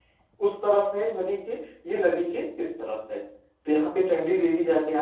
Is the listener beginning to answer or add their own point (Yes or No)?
No